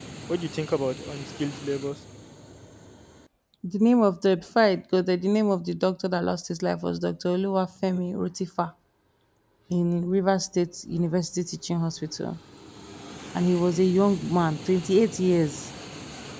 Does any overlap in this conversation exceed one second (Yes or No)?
No